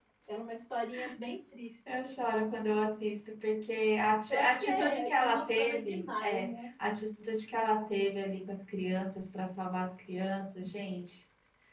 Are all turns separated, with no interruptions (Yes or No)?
No